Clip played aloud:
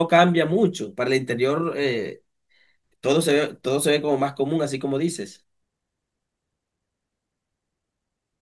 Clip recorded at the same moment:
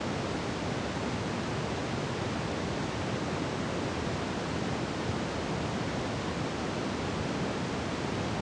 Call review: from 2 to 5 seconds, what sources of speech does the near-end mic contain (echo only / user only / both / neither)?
neither